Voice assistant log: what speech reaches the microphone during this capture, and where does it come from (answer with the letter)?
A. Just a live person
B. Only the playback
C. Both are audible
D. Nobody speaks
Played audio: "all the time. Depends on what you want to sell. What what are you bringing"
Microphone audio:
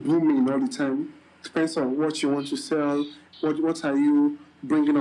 B